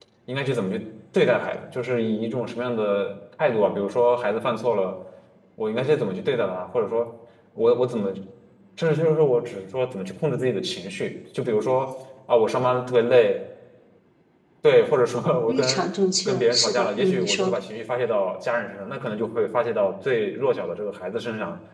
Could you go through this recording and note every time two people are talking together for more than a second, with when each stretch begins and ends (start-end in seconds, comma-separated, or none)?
15.5-17.5